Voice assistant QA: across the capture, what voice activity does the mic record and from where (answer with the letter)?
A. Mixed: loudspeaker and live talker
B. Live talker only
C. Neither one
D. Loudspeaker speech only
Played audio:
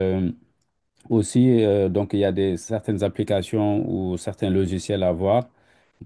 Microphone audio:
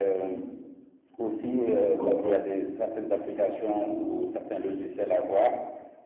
A